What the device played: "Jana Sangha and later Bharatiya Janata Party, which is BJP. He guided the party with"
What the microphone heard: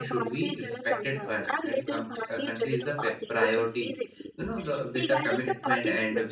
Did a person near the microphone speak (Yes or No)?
Yes